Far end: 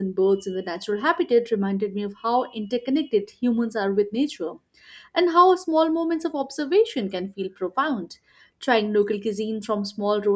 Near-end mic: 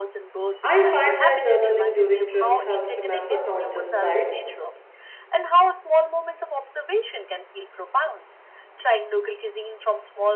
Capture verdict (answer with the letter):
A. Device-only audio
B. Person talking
B